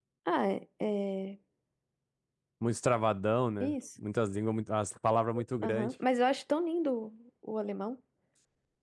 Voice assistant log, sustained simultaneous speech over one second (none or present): none